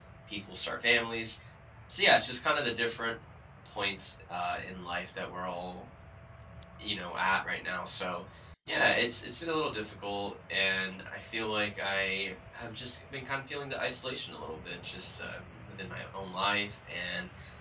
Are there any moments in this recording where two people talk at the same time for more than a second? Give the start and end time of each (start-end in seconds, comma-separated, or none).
none